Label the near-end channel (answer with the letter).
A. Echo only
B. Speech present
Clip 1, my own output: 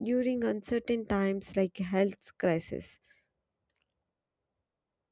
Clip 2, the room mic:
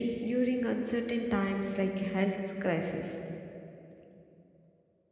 A